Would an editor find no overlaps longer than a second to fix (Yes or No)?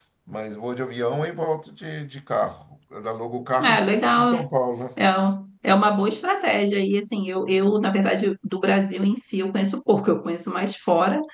Yes